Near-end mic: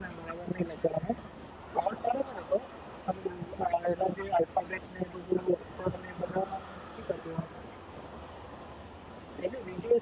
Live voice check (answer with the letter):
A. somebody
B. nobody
B